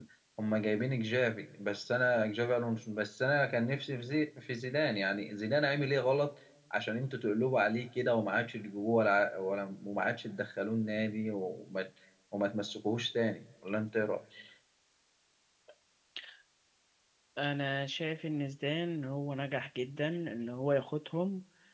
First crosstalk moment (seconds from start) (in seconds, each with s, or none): none